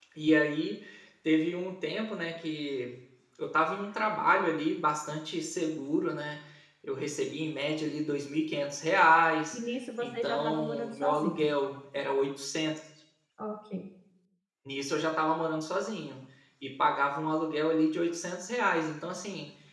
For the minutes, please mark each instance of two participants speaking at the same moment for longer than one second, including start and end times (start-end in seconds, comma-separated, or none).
10.0-11.5